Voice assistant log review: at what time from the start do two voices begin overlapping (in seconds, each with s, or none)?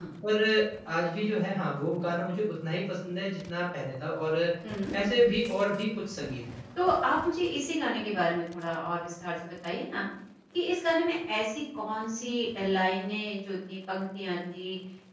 none